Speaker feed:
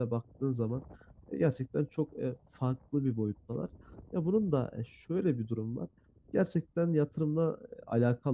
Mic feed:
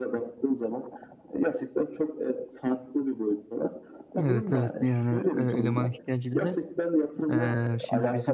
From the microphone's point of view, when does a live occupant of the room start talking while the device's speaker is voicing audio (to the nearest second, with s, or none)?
4 s